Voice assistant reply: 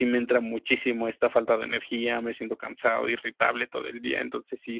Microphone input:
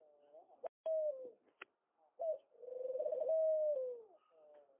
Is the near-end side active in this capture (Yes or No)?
No